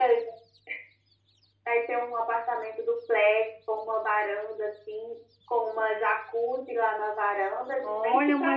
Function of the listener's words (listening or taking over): taking over